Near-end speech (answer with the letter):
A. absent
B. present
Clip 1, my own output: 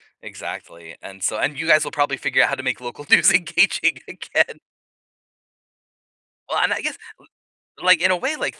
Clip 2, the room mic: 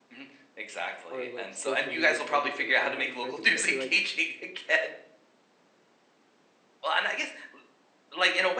B